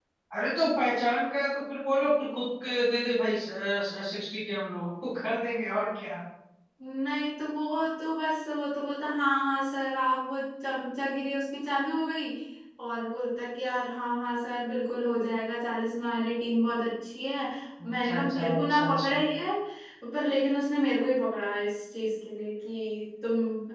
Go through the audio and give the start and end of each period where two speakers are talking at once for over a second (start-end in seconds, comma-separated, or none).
17.9-19.2